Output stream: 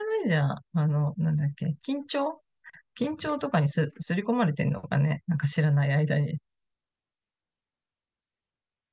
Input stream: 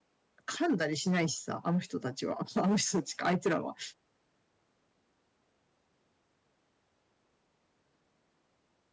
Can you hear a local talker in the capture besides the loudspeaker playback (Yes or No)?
Yes